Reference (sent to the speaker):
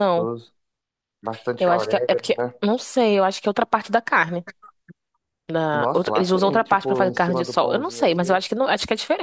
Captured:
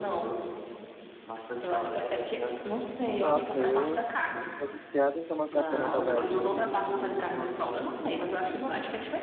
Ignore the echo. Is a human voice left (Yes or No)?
Yes